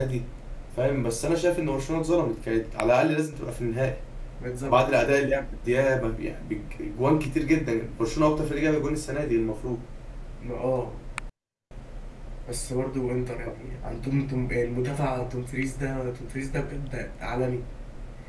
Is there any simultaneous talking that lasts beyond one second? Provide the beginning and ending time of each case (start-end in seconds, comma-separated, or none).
none